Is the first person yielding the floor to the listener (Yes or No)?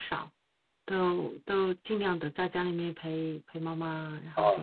Yes